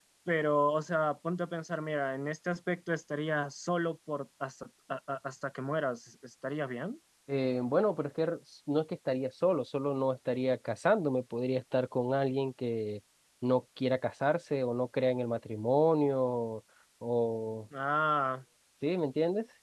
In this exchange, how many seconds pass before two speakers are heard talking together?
none

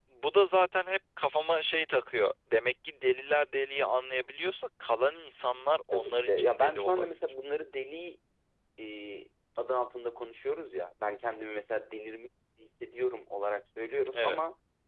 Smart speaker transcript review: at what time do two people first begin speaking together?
5.9 s

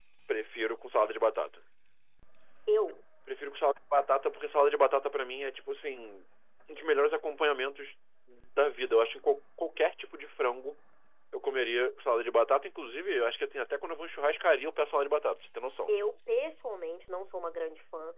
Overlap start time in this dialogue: none

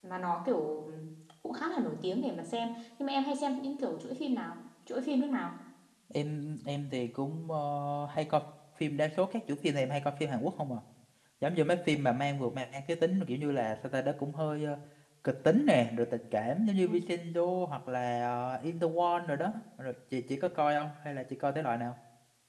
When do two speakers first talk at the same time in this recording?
none

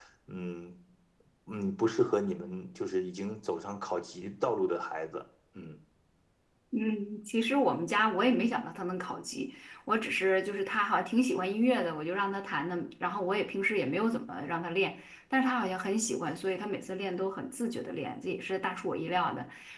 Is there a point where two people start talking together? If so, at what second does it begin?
none

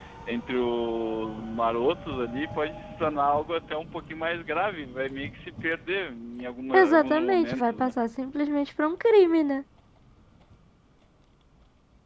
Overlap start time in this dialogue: 6.7 s

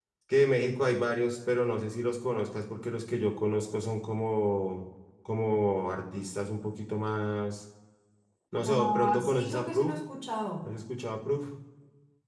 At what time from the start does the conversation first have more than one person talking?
8.7 s

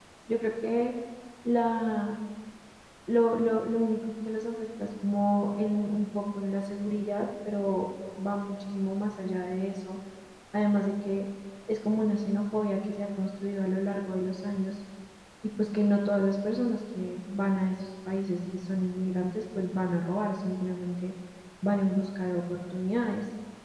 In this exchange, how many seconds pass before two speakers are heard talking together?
none

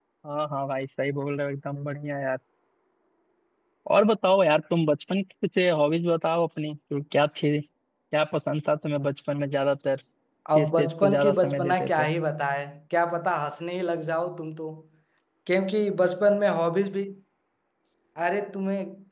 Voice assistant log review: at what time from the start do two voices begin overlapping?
10.6 s

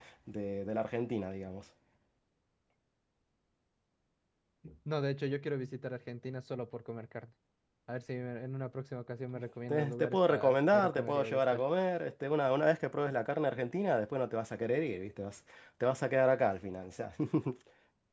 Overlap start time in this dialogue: 9.7 s

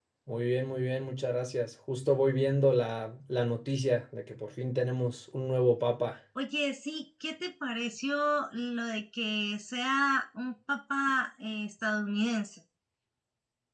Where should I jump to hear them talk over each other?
none

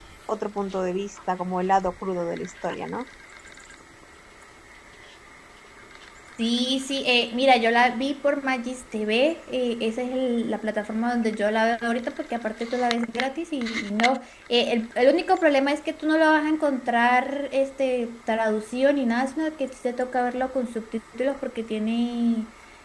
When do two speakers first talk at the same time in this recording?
none

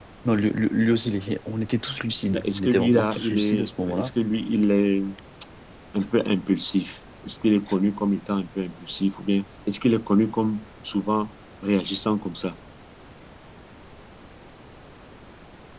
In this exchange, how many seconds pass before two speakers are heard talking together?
2.3 s

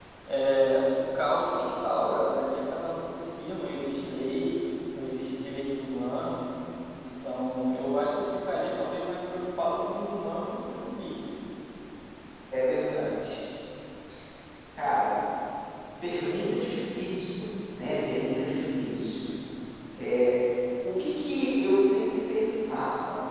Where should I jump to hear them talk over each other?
none

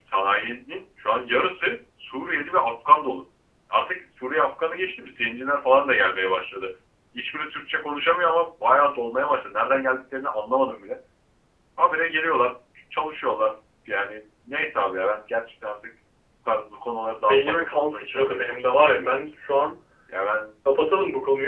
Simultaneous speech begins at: 17.1 s

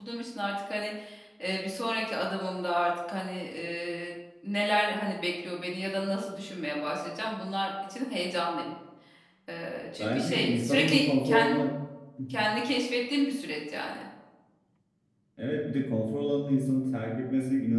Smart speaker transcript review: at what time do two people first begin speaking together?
10.0 s

